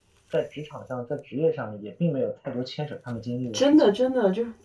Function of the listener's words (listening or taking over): taking over